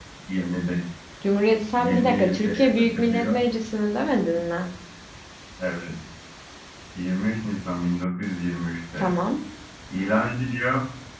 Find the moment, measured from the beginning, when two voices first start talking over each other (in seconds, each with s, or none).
1.8 s